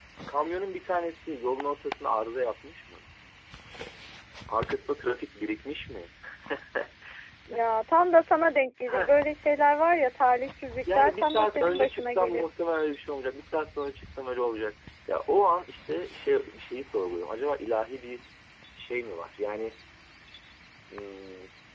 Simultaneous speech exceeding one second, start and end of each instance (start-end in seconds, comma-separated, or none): 10.8-12.4